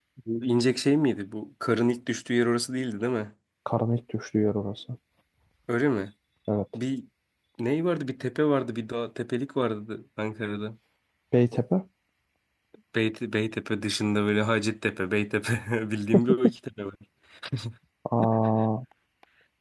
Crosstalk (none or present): none